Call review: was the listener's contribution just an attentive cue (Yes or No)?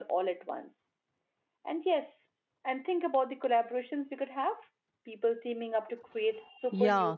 No